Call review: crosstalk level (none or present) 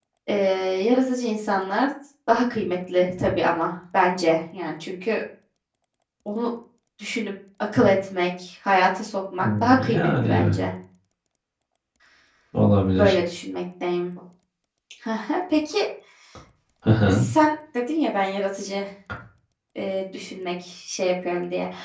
present